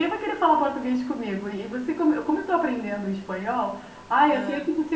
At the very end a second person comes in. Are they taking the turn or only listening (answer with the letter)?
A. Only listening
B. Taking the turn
A